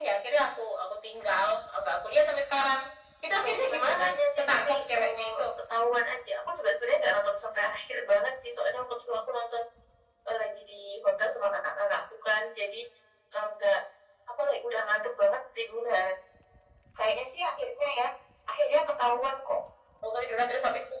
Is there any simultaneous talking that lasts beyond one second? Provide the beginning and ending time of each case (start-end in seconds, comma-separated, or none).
3.4-5.2